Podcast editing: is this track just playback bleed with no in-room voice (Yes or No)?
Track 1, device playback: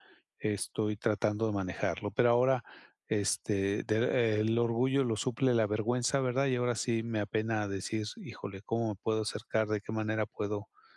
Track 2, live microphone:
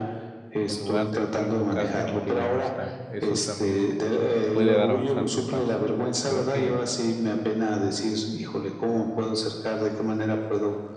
No